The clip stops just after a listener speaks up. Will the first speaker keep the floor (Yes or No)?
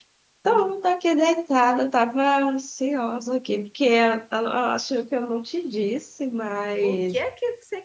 No